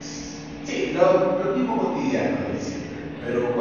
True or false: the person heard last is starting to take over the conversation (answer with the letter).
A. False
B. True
A